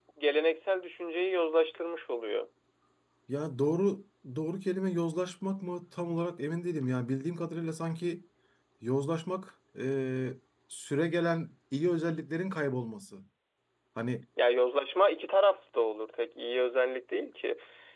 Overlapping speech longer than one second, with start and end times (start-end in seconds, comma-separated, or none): none